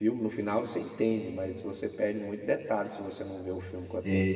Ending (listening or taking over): taking over